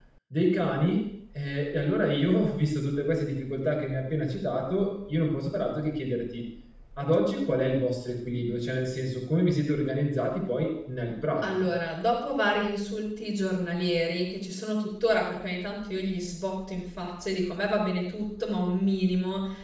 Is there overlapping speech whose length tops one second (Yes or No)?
No